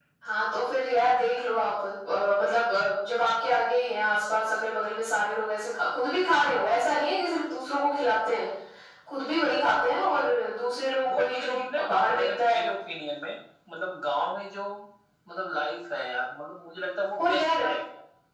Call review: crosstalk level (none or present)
present